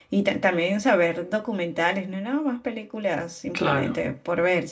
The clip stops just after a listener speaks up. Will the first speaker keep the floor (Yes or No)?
Yes